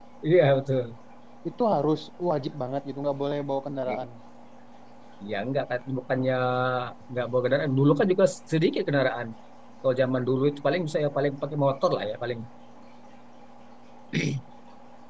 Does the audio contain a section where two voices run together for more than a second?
No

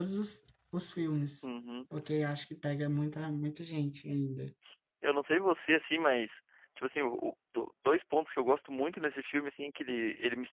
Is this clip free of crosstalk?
Yes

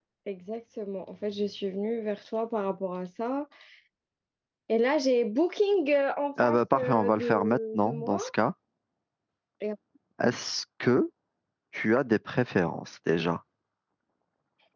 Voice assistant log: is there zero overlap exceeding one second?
No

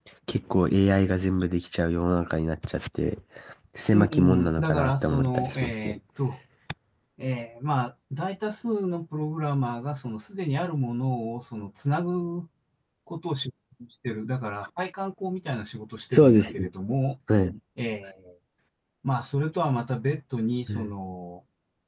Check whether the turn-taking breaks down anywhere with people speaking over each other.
Yes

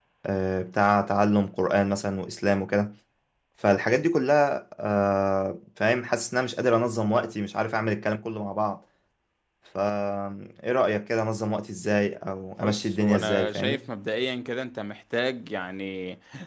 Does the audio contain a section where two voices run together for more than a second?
Yes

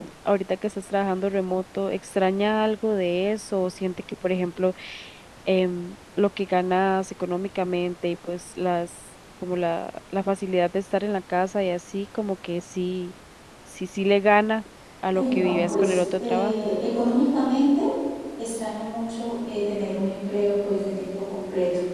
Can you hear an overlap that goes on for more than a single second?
Yes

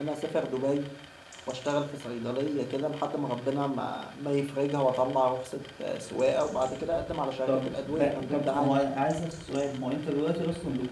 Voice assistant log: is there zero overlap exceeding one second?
No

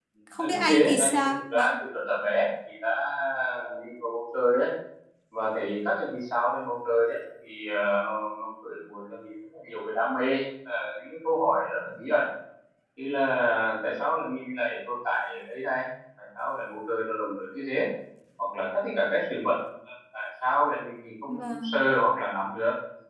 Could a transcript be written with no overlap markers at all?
No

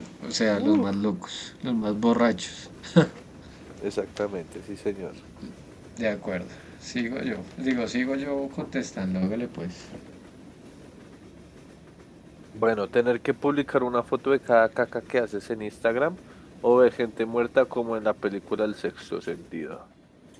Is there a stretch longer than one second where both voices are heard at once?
No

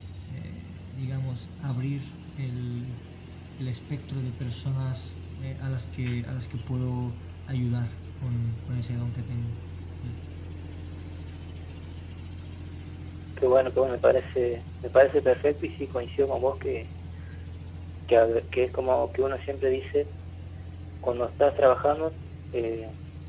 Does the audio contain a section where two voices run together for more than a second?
No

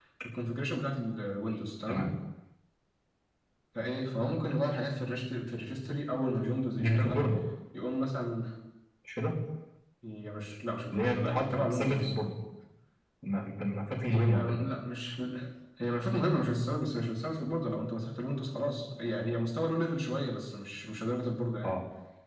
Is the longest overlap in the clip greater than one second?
Yes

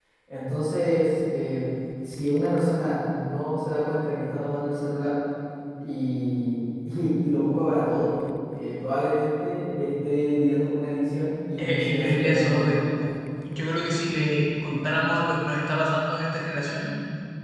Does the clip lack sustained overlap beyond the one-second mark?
No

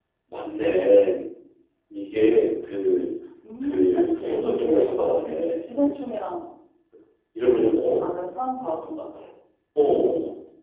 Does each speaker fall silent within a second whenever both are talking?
No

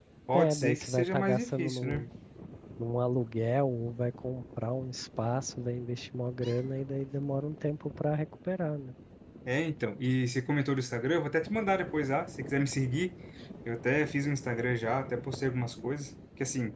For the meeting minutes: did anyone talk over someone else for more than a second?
Yes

